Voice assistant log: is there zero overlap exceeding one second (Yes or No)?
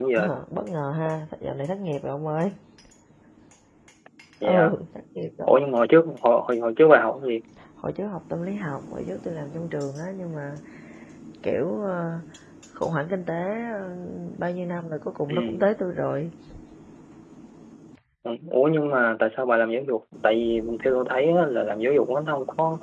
Yes